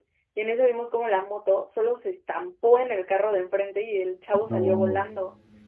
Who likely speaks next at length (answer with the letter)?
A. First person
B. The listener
A